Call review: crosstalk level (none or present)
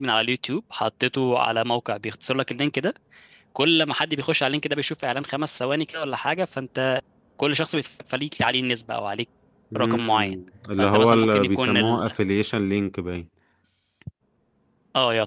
present